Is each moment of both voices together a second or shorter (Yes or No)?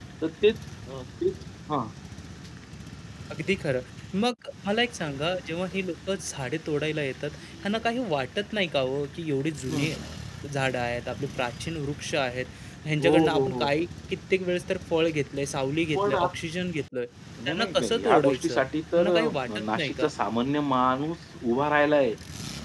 No